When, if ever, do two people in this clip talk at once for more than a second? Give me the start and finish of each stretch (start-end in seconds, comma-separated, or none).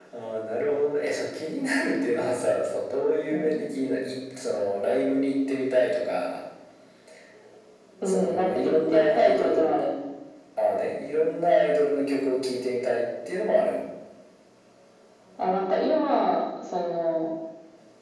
8.0-9.8